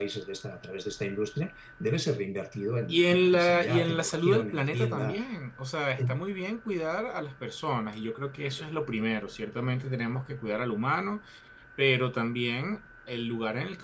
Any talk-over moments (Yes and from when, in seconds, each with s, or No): Yes, from 2.9 s